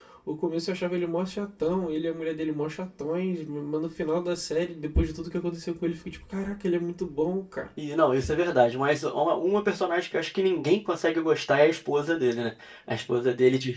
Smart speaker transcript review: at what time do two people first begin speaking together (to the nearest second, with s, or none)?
none